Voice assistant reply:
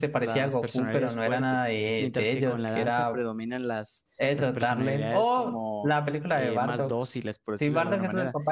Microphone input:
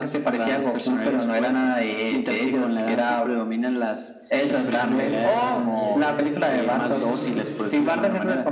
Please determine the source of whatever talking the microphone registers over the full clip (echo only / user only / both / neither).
both